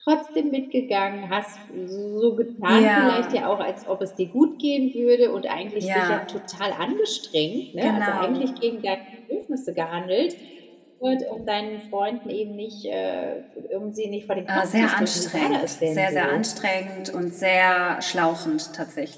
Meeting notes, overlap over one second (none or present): present